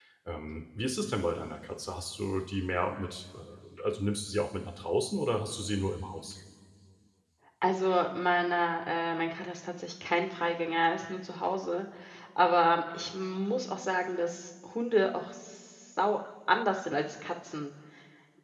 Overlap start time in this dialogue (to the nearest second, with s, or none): none